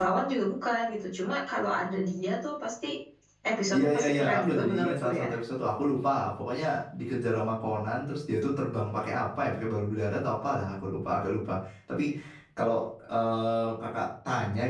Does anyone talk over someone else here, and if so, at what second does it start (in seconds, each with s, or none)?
3.7 s